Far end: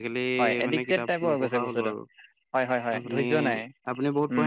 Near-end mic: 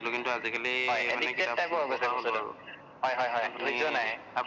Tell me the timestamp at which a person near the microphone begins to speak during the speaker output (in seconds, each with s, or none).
none